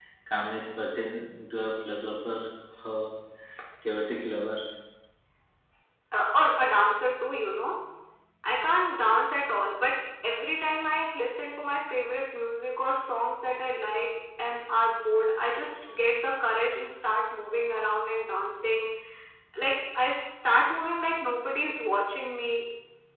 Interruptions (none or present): none